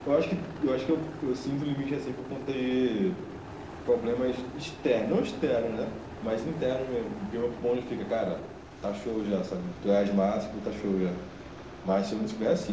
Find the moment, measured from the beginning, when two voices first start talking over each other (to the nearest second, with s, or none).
none